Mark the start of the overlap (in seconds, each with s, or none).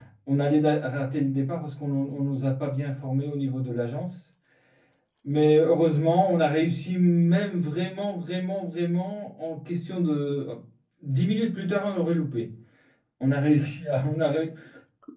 none